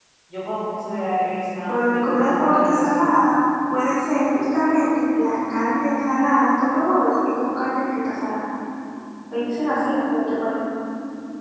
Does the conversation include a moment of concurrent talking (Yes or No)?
Yes